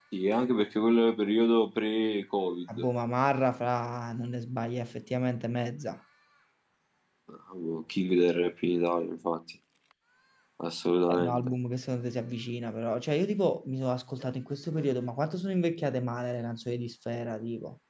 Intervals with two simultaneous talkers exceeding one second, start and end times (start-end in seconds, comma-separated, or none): none